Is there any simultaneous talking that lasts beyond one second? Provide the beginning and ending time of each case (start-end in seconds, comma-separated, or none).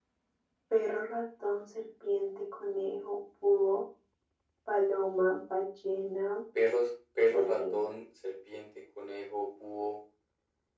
none